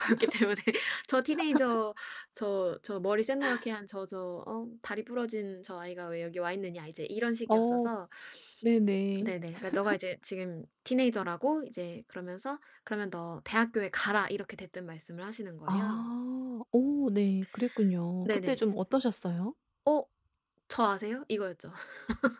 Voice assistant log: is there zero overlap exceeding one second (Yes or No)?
Yes